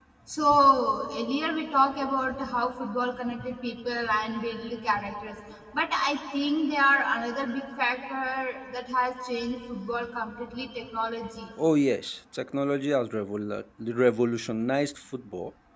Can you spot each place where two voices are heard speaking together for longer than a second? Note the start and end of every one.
none

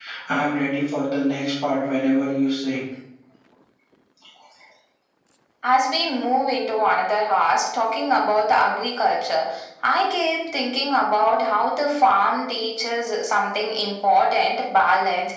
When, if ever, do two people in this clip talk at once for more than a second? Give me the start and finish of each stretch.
none

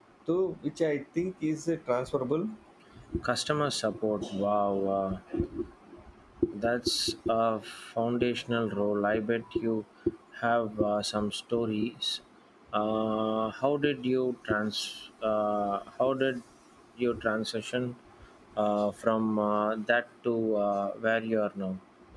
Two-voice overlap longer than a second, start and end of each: none

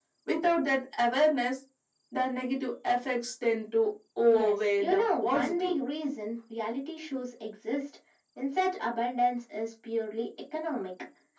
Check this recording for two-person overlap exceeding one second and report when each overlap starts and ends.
4.3-5.8

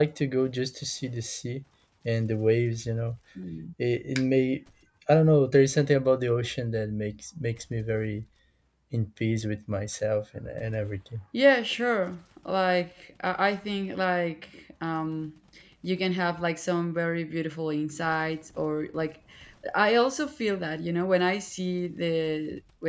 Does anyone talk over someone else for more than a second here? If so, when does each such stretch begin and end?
none

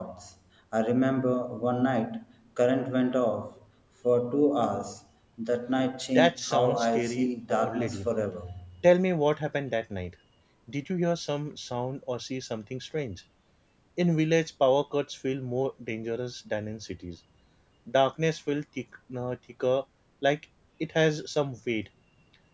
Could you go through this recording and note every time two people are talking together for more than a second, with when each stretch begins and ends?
6.2-8.1

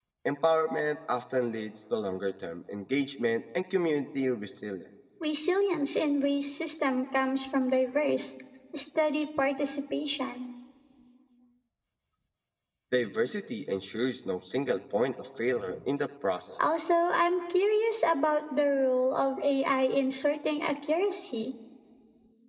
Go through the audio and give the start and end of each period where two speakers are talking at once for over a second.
none

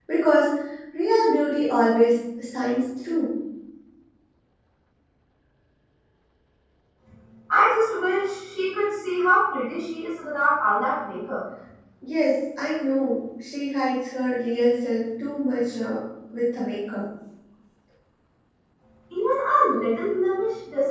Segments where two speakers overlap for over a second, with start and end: none

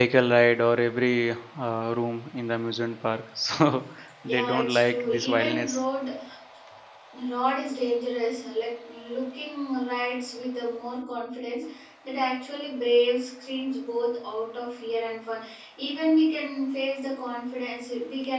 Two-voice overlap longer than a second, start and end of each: 4.2-5.7

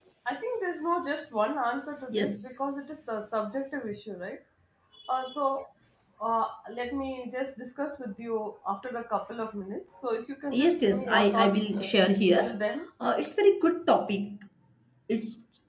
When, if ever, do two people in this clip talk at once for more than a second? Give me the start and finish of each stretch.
10.5-11.9

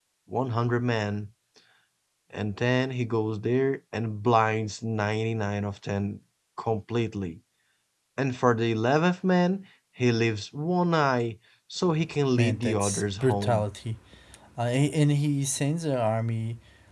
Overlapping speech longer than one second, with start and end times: 12.4-13.7

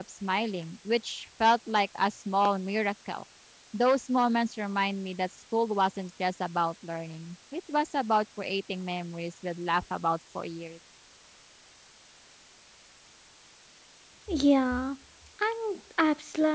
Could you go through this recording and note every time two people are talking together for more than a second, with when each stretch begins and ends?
none

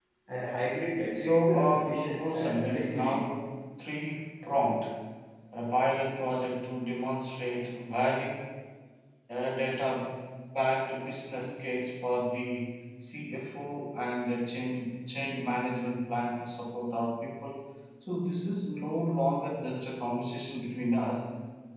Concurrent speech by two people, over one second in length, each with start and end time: 1.2-3.1

